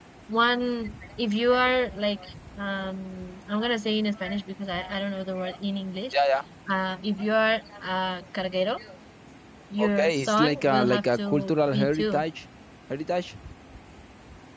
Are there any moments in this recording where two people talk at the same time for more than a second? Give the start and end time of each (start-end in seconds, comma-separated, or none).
9.8-12.2